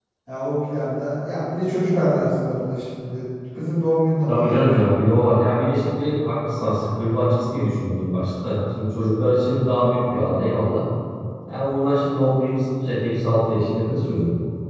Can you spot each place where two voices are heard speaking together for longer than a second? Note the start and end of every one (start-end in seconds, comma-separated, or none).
none